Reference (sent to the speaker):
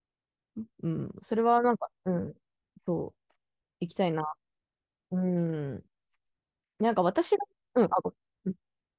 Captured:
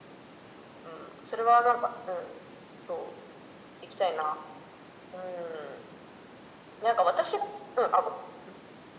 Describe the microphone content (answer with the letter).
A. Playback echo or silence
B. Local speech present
A